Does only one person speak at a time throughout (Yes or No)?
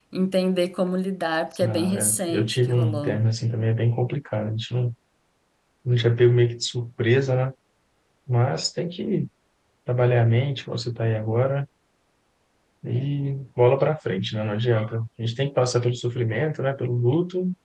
No